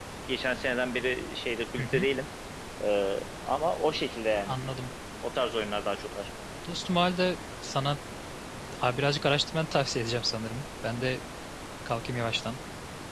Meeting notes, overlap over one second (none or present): none